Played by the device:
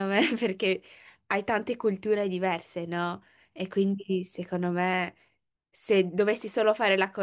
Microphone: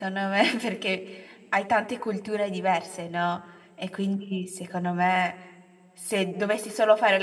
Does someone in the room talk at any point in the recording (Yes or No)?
No